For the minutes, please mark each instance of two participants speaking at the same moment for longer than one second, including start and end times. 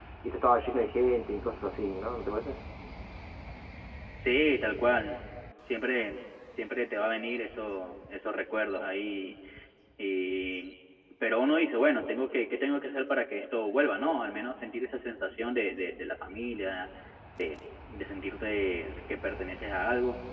none

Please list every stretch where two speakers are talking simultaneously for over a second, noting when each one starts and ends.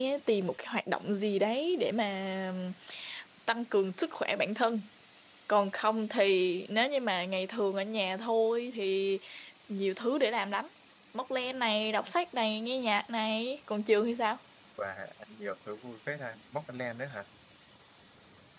none

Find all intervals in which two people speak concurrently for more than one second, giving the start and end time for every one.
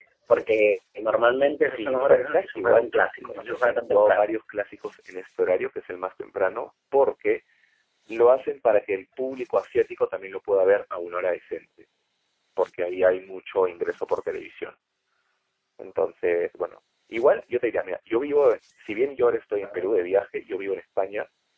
1.6-4.2

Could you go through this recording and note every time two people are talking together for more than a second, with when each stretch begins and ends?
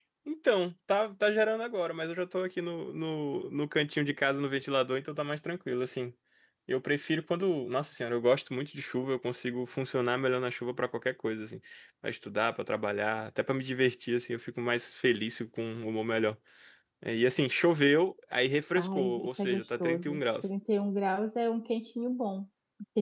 18.7-20.4

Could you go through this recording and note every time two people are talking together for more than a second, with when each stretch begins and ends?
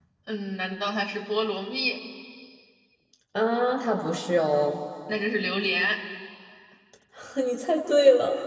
none

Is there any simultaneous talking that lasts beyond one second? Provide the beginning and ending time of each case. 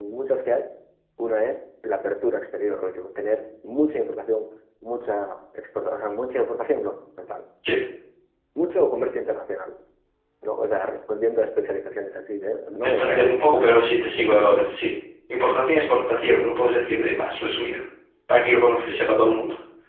12.8-14.6

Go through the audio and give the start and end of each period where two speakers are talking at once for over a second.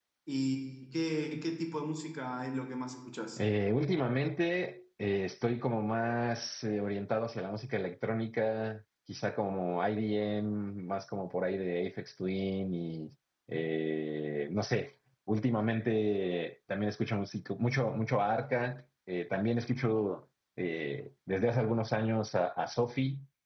none

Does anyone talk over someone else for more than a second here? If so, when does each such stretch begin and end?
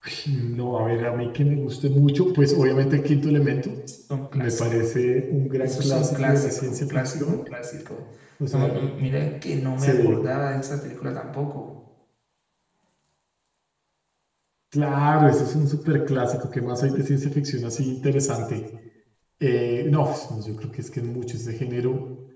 5.6-7.4

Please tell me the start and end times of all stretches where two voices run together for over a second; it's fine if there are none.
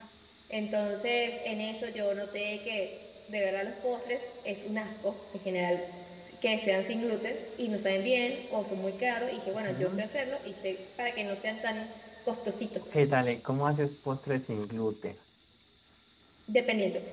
none

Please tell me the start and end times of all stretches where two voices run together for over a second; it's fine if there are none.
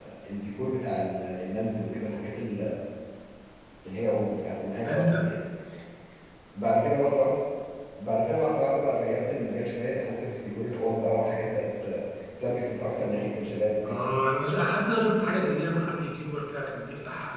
none

